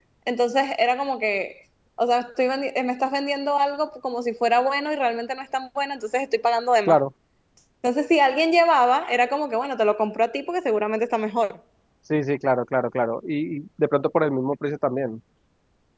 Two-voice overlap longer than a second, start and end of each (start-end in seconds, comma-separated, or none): none